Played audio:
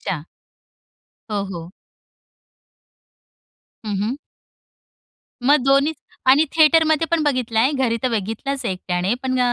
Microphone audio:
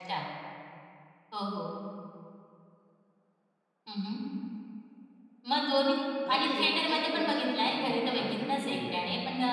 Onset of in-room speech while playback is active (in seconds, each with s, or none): 6.2 s